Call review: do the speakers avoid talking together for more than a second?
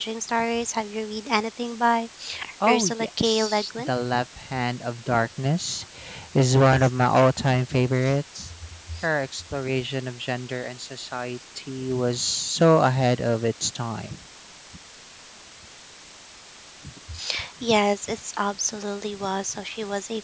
No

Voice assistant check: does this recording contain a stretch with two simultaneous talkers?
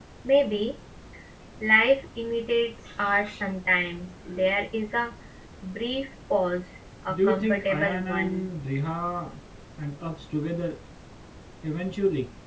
Yes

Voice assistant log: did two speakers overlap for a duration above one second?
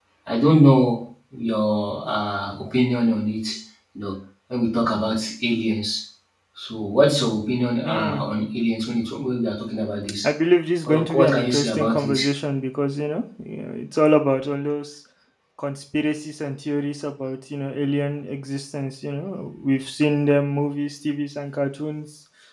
Yes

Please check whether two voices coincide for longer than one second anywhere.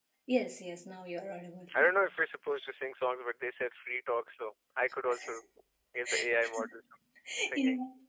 No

